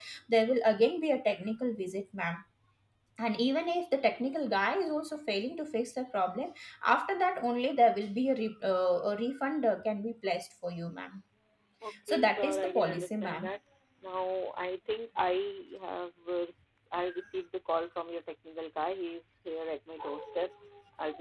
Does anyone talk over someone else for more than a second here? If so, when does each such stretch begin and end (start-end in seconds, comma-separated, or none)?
12.1-13.5